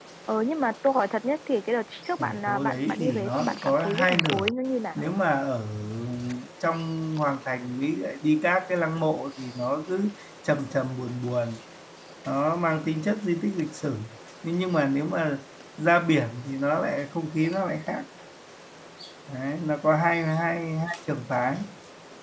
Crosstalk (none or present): present